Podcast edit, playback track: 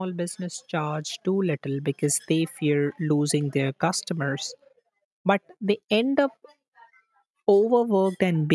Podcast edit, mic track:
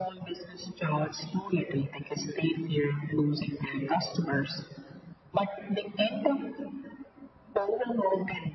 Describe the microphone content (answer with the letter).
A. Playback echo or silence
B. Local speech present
A